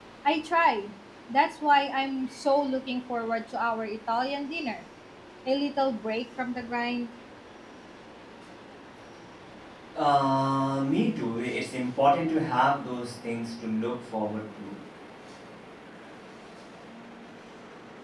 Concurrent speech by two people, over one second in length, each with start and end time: none

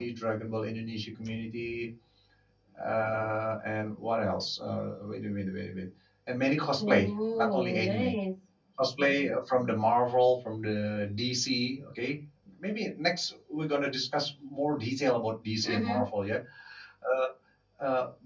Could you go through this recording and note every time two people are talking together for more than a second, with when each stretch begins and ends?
6.8-8.1

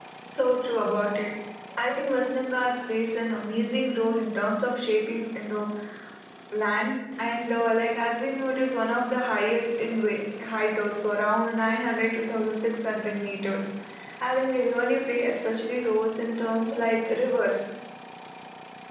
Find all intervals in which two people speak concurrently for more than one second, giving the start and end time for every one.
none

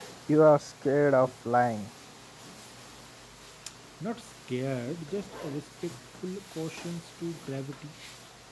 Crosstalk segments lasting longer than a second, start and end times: none

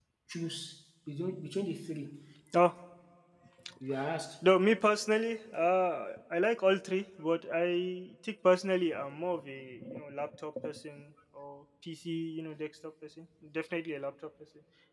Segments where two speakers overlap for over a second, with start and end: none

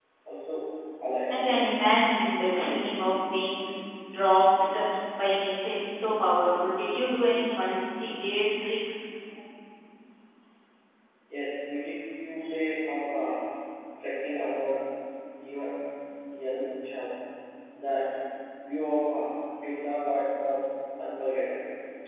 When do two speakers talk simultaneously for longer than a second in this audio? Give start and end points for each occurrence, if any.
none

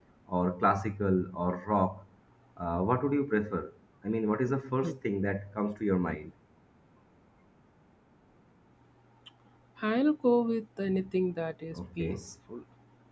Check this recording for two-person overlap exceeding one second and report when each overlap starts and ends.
none

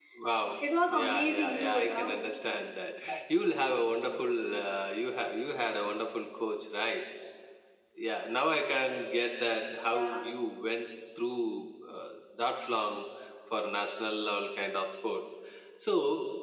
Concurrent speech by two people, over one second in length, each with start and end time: 0.9-2.1

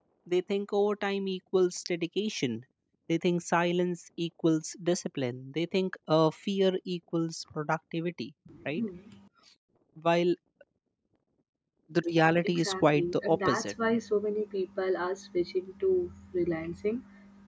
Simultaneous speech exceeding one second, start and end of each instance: 12.4-13.7

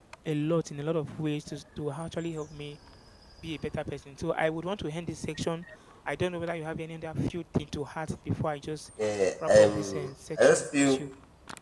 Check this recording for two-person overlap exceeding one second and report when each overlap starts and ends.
9.4-11.0

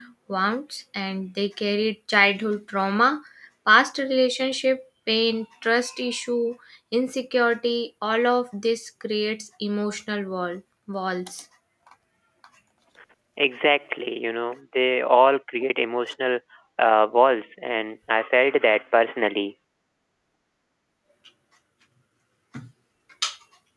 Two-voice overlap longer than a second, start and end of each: none

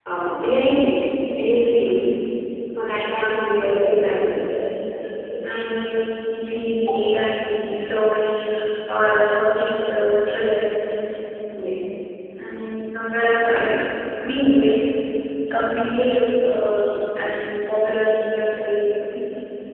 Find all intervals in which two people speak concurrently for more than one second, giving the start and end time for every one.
none

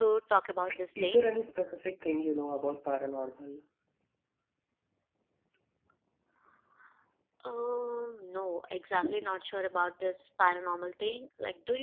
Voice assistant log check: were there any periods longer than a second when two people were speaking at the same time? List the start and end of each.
none

